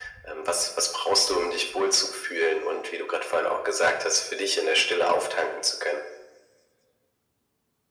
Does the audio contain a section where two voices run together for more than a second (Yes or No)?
No